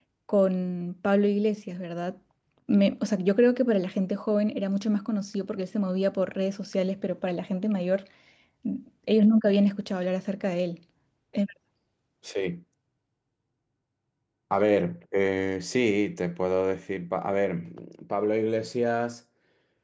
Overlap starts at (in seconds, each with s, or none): none